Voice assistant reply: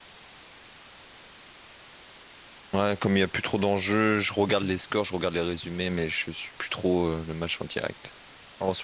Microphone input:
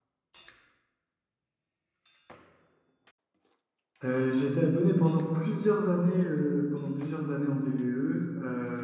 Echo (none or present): none